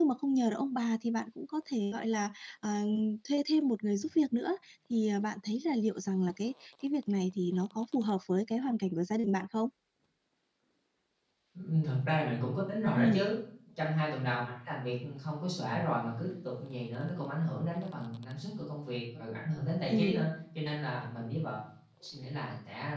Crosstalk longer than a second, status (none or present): none